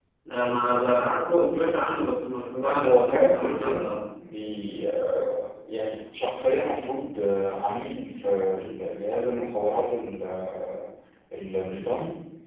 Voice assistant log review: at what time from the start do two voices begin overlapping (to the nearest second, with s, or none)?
3 s